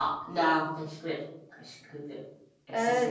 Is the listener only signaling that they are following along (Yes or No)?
No